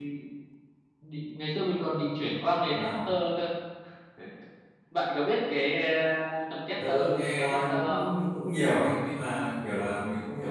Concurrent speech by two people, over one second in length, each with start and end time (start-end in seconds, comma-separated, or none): 6.9-8.1